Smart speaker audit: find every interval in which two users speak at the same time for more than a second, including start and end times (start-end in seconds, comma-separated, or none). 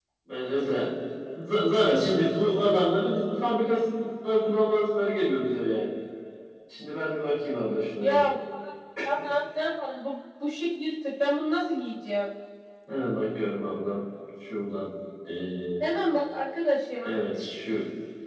none